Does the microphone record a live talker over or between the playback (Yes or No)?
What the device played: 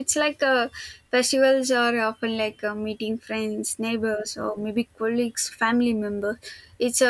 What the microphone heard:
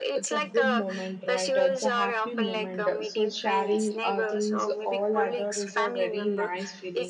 Yes